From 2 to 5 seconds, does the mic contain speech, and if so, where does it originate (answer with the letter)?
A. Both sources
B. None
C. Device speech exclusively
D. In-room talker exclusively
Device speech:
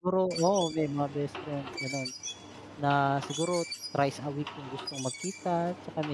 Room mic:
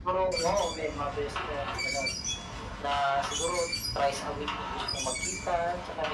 C